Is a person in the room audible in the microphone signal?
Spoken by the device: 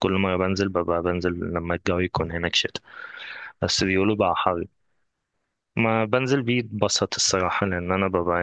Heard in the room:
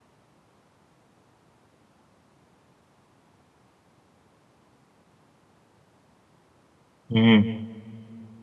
Yes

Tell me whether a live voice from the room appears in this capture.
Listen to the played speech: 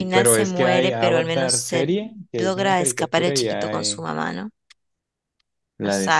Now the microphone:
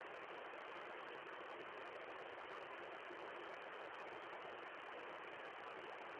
No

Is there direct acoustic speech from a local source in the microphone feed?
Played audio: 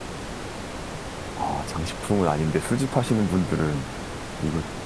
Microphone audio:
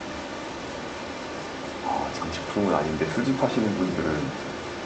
No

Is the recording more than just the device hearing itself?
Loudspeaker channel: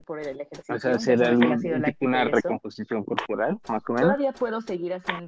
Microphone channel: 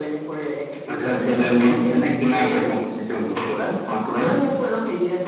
No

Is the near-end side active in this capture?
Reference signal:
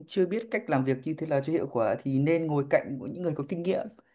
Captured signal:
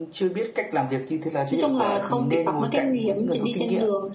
Yes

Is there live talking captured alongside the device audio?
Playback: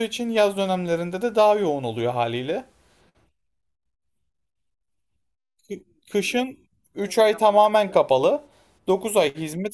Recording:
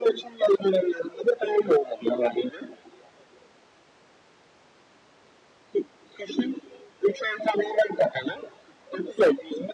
No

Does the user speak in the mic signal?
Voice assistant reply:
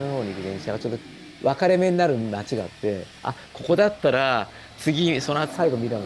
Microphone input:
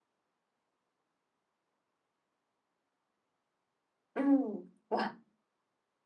Yes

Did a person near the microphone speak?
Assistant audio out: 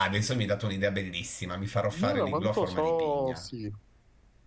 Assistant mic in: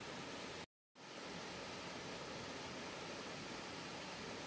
No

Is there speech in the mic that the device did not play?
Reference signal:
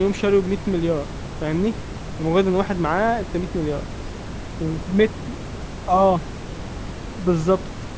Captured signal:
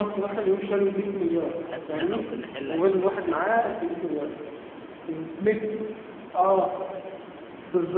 Yes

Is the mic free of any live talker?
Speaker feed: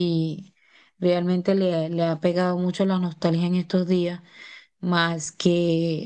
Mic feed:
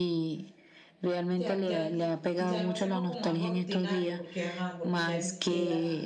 No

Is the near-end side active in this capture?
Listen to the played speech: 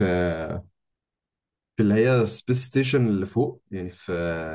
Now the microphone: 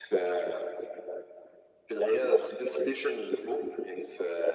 No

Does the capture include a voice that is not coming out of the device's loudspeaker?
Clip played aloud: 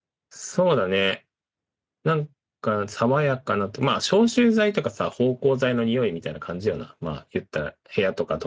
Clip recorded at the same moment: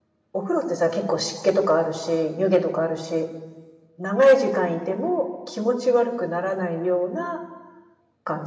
Yes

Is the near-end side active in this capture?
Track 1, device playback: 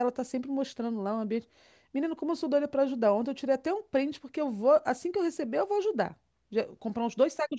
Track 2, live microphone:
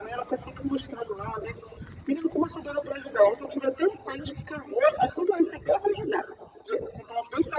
No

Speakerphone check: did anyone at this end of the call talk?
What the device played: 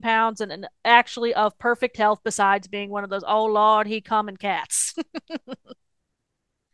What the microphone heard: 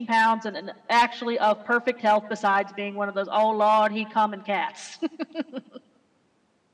No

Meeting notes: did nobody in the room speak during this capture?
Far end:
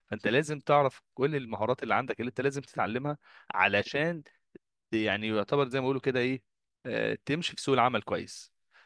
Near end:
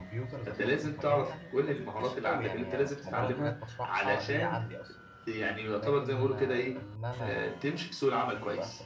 No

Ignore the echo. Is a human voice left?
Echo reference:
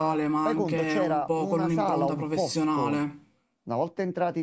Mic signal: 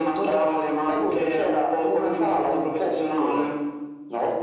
No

